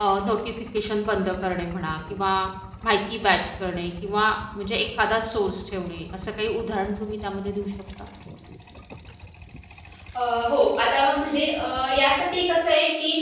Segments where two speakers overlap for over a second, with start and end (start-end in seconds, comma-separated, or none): none